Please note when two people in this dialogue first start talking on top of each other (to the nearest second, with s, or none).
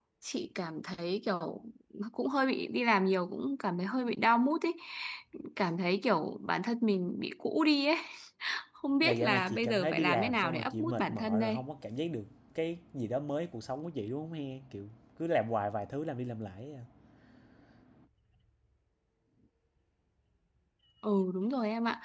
9 s